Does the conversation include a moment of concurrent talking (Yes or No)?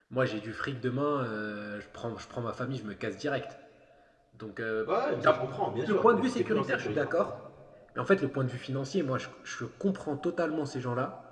Yes